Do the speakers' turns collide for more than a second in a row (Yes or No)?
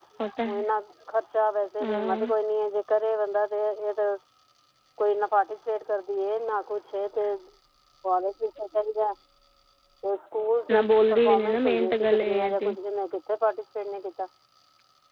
Yes